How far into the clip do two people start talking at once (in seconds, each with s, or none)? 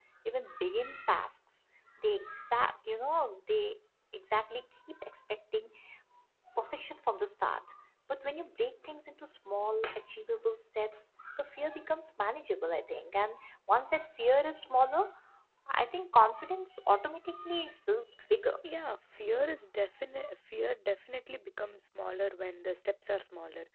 none